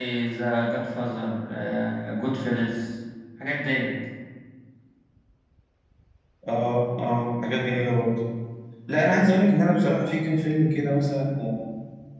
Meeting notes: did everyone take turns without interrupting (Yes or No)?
Yes